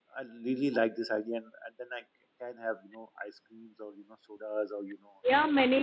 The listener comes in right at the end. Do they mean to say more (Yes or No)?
Yes